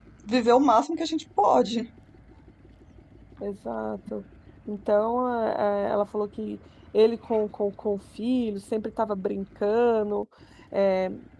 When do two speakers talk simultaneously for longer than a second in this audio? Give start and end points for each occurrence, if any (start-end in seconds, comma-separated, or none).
none